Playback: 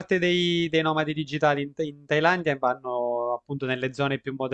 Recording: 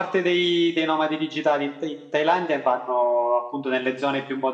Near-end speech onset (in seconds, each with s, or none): none